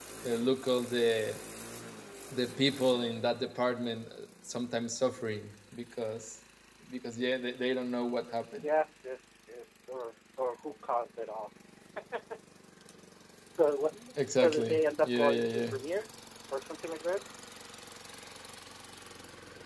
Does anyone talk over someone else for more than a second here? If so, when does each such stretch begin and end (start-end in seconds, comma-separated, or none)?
14.4-15.7